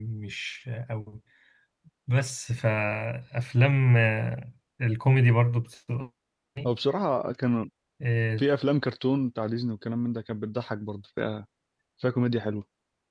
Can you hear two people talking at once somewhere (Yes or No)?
No